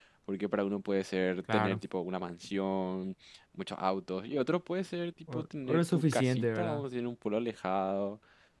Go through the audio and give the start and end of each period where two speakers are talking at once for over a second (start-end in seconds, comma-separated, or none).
5.3-6.8